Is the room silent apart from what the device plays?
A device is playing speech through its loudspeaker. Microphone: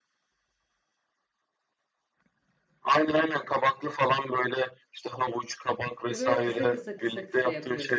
No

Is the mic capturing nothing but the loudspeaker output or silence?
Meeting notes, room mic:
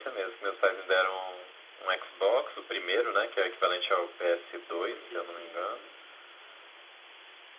No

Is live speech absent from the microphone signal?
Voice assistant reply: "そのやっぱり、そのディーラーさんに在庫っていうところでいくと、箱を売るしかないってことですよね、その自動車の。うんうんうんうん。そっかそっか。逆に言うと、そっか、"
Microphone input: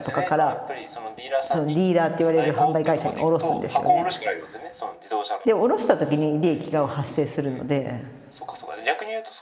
No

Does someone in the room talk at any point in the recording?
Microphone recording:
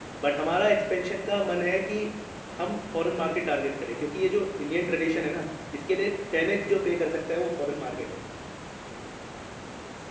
Yes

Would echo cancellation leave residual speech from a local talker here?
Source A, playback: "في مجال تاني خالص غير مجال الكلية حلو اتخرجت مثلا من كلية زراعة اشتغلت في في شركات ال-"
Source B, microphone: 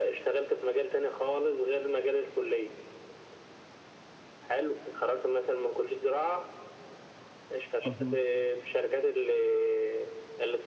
Yes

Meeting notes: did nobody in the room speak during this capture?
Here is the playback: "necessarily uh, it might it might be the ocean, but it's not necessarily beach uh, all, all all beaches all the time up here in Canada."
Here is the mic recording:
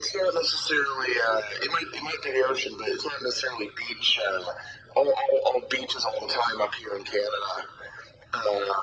Yes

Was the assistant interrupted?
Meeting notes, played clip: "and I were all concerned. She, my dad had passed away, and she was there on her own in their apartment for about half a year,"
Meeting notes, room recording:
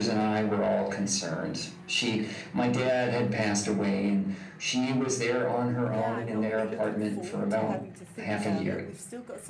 Yes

